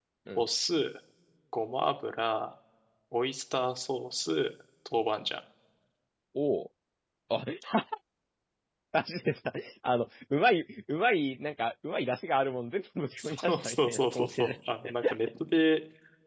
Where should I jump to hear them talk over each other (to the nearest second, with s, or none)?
13 s